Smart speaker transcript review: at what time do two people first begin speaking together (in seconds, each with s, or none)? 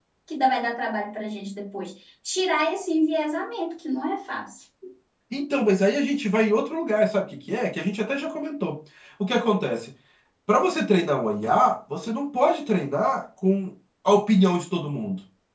none